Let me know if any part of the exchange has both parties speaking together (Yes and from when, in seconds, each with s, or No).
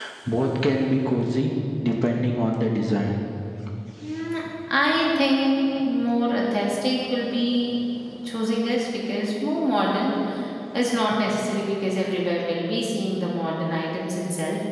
No